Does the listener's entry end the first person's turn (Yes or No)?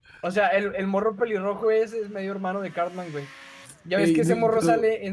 No